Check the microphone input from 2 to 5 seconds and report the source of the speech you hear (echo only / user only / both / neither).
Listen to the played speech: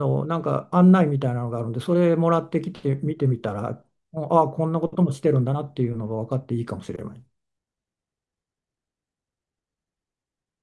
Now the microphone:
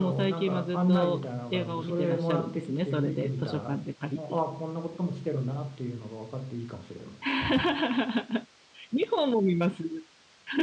both